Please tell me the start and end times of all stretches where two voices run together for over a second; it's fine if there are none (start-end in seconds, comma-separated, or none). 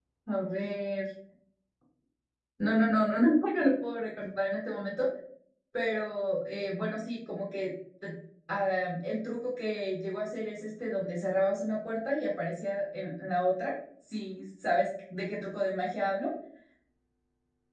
none